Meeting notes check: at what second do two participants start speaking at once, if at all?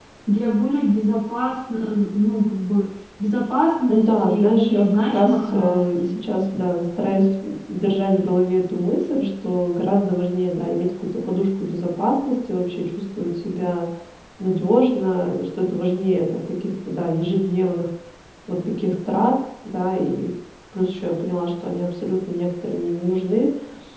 3.9 s

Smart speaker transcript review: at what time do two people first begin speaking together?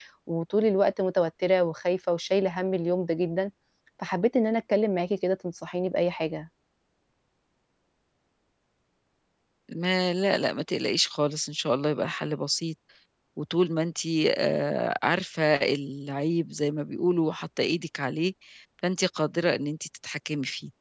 none

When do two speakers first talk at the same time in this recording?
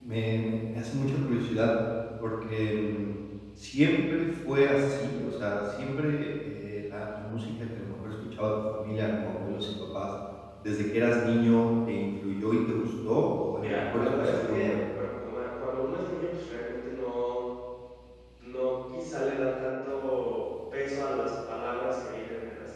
13.6 s

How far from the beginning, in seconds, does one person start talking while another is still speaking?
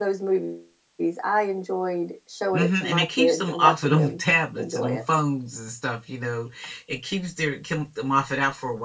2.5 s

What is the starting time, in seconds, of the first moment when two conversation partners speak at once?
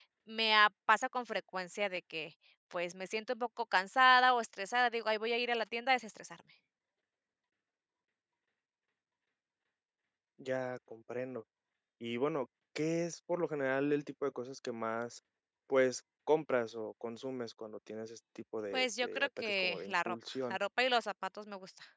18.7 s

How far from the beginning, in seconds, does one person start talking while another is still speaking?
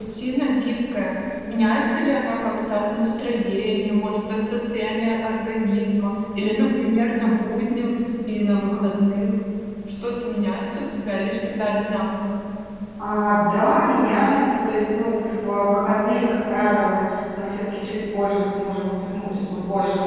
none

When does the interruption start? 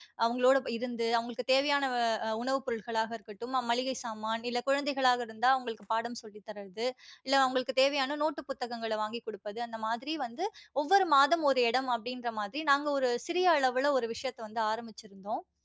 none

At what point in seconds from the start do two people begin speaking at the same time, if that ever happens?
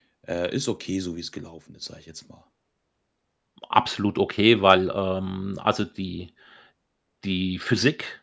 none

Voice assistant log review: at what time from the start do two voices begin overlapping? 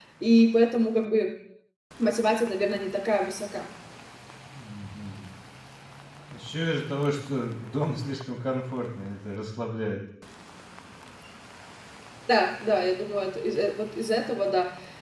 none

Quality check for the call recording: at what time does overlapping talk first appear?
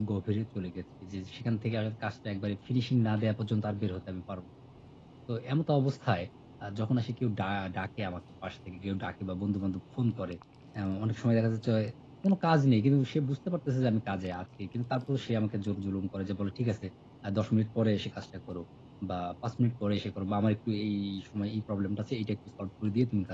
none

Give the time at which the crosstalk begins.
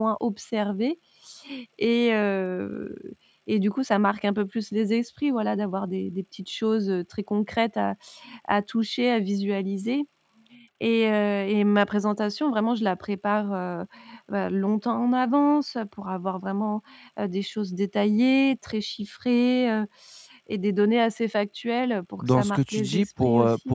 22.2 s

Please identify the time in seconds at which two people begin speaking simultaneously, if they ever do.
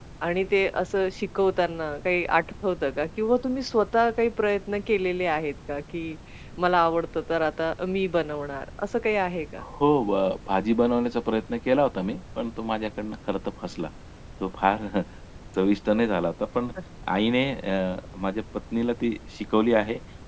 none

